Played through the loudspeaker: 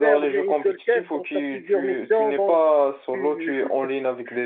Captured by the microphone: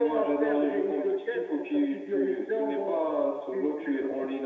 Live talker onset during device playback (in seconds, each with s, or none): none